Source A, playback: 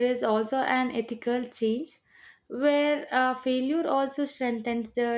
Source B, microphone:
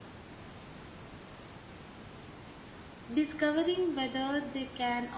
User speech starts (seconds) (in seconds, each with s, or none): 3.1 s